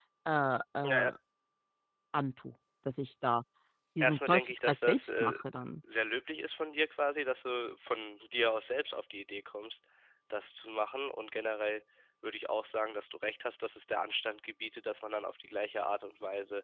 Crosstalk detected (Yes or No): Yes